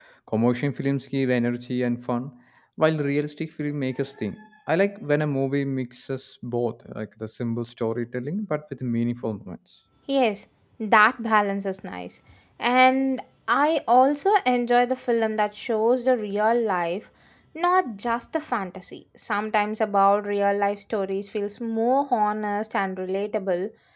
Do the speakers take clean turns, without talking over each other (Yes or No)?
Yes